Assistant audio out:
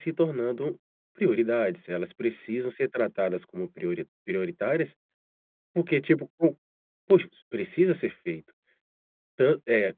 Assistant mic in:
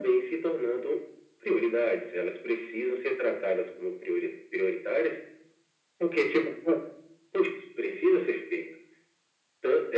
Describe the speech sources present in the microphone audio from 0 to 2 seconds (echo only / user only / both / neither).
echo only